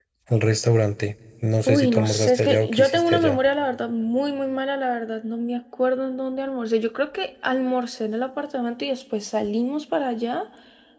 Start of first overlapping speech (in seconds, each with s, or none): 1.7 s